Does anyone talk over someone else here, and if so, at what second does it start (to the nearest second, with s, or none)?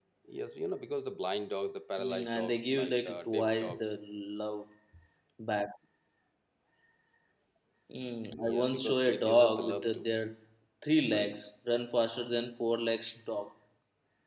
2 s